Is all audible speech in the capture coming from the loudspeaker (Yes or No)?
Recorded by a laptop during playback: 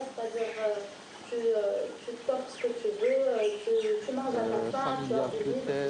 No